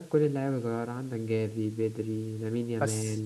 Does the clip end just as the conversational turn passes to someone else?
No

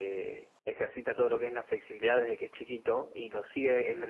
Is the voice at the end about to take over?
No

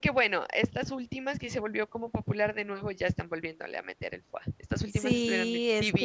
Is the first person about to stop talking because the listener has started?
Yes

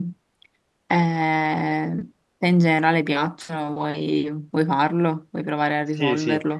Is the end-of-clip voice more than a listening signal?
Yes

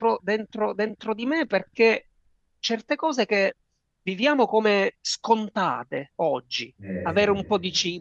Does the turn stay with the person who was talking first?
Yes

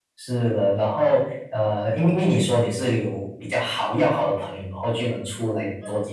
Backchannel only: Yes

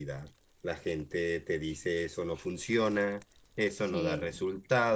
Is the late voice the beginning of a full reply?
No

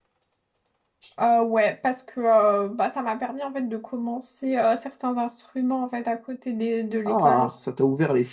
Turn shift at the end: Yes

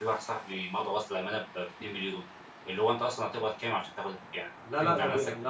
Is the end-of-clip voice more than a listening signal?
Yes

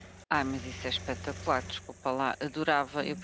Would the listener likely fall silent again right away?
Yes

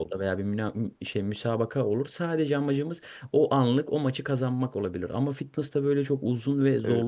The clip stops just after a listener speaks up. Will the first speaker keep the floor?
No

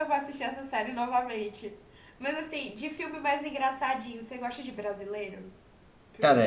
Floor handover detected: Yes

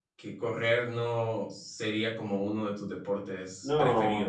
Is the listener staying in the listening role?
No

